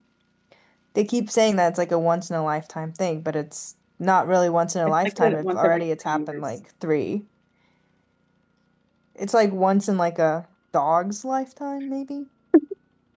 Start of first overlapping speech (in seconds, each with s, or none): 4.9 s